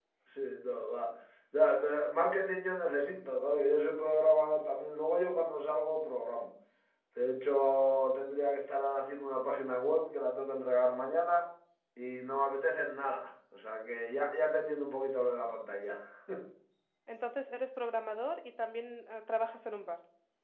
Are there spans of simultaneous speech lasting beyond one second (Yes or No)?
No